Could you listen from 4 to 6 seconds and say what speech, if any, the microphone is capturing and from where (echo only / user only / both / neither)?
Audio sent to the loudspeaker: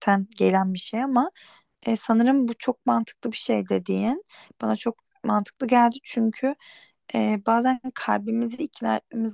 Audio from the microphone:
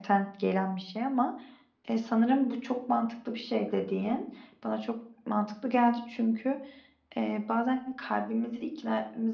echo only